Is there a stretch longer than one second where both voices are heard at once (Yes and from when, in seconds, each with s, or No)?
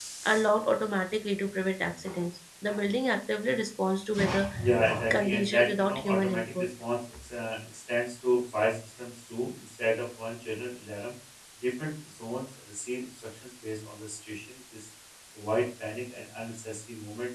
Yes, from 4.6 s